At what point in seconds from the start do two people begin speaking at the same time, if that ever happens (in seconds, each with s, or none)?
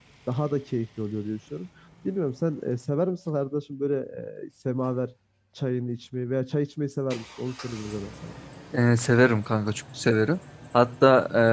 none